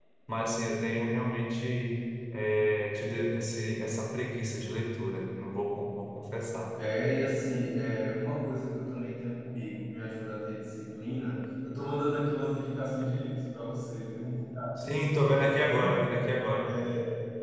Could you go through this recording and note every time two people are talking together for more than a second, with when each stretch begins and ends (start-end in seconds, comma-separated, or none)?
none